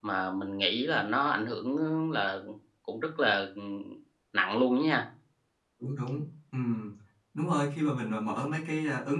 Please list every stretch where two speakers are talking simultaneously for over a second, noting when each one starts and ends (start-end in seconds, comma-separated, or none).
none